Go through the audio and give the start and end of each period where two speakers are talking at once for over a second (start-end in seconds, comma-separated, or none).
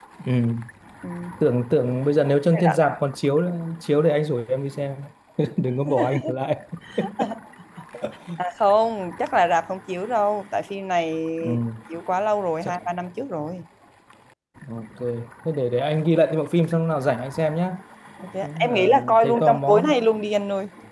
18.4-19.9